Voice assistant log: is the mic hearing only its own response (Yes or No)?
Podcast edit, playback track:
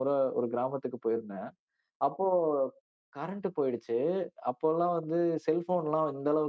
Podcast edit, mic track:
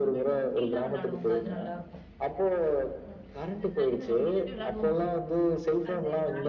No